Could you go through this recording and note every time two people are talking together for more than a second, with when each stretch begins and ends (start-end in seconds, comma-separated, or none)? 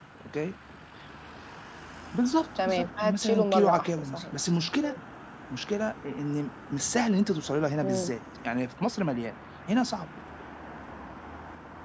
2.6-4.3